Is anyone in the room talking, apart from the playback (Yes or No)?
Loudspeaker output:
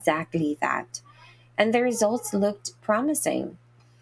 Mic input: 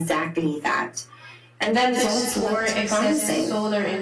Yes